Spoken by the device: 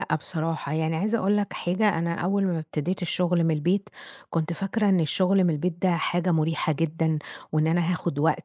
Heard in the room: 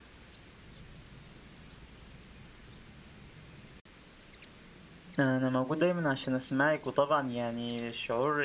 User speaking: Yes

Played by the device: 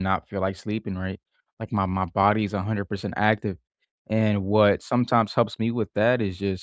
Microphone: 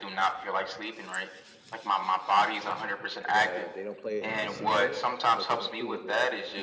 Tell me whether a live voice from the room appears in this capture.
Yes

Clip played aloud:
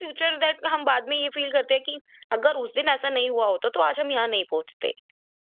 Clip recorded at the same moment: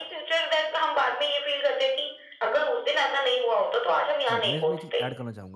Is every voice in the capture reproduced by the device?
No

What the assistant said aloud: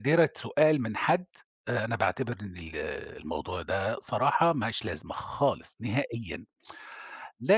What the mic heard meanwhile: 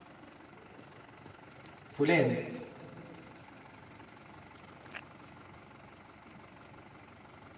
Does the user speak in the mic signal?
Yes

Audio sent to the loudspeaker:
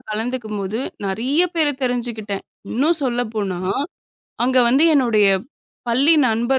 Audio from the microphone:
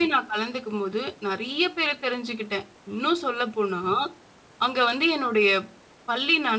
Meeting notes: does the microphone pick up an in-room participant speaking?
No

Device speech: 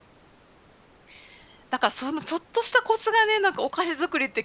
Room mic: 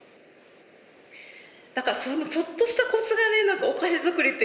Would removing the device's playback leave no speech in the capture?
Yes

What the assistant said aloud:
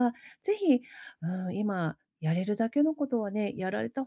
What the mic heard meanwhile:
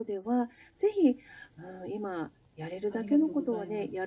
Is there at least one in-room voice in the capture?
Yes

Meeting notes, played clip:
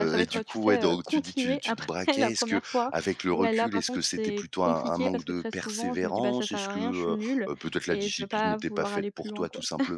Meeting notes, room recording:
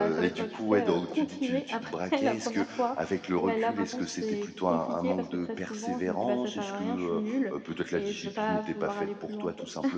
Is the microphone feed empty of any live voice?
Yes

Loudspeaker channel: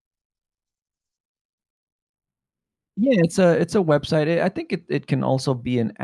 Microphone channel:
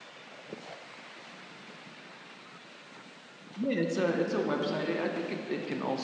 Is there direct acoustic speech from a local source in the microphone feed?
No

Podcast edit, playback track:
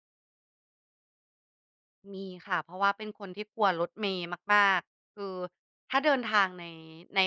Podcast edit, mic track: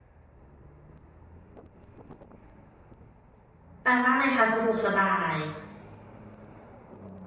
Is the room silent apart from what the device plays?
No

